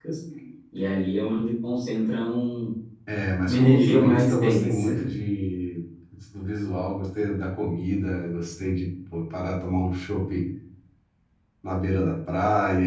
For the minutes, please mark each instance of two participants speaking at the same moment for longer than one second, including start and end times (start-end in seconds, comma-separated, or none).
3.5-5.0